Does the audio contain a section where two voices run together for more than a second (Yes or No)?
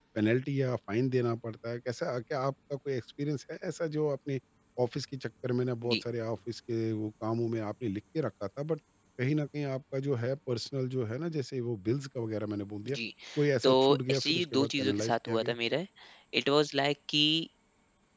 Yes